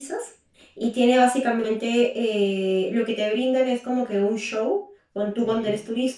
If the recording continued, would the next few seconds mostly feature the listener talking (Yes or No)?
No